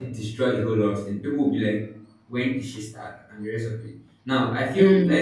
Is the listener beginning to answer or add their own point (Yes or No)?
No